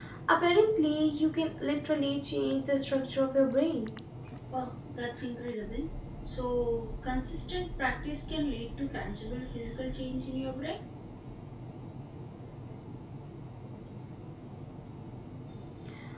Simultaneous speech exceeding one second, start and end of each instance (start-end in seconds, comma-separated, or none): none